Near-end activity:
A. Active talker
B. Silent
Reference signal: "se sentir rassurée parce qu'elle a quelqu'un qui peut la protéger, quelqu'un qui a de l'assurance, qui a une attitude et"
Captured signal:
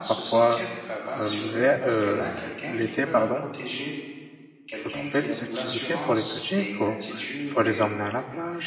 A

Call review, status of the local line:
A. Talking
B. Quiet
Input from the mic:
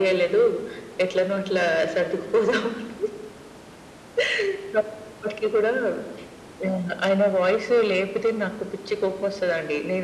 B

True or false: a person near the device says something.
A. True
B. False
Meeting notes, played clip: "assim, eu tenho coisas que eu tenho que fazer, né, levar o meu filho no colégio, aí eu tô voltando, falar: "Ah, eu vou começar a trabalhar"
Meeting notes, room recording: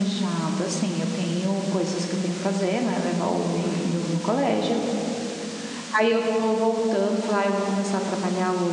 A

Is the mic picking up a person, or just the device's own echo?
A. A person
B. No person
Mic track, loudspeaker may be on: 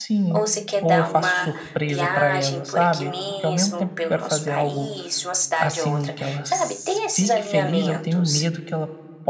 A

